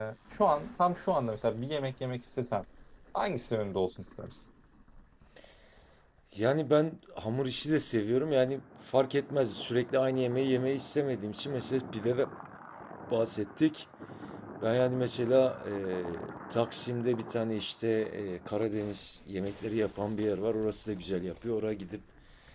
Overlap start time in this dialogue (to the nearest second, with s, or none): none